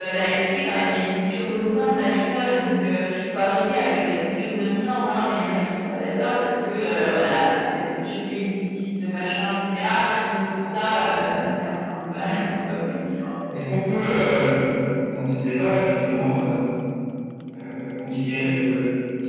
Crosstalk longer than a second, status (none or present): none